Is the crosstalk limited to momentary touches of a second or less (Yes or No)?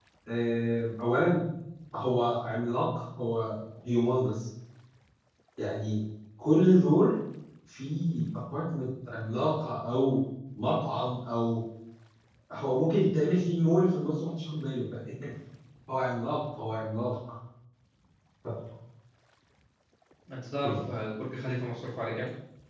Yes